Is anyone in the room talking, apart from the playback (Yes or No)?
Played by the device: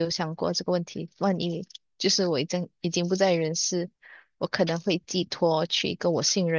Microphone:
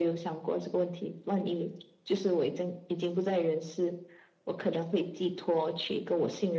No